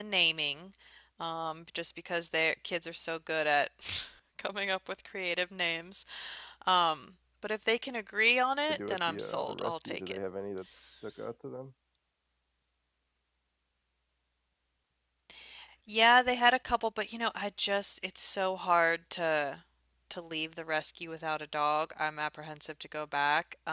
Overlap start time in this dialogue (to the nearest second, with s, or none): 9 s